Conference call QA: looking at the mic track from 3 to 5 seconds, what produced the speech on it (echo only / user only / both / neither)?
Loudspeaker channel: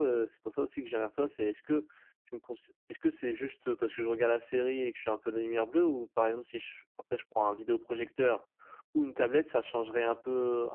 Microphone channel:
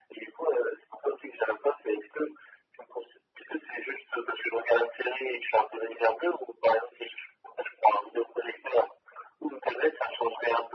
echo only